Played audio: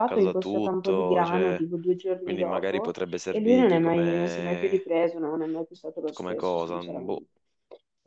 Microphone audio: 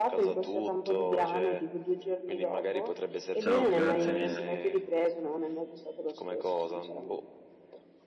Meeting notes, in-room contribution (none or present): present